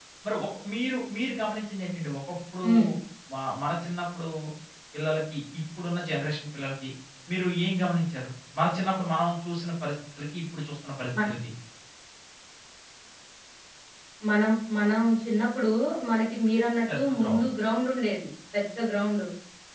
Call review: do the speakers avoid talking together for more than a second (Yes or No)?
Yes